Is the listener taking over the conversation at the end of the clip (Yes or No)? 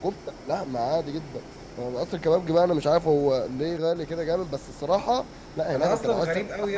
Yes